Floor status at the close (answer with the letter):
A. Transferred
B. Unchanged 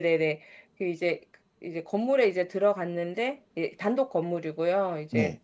B